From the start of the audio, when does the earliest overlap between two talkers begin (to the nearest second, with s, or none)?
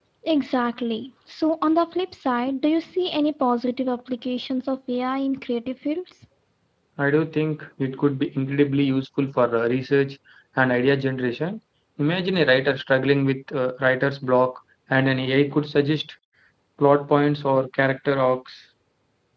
none